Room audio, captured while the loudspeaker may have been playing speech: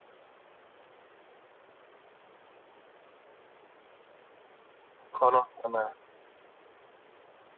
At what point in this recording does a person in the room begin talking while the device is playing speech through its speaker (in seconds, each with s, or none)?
5.2 s